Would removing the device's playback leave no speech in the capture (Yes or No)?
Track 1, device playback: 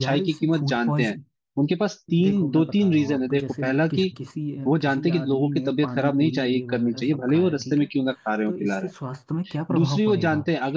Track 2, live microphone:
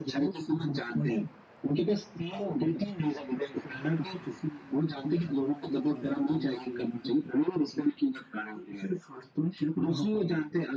Yes